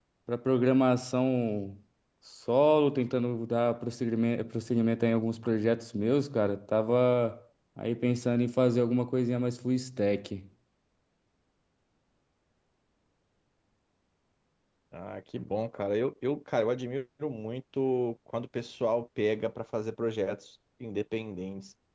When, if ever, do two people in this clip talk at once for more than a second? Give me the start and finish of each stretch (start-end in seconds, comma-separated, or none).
none